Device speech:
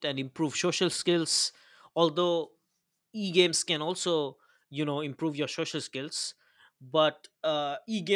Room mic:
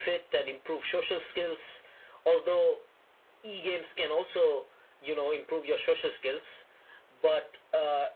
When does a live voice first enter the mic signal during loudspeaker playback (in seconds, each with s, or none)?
none